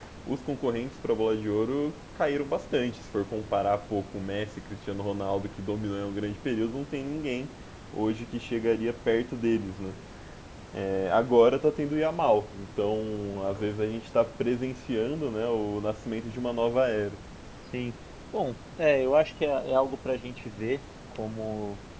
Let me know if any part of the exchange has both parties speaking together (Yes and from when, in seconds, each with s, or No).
No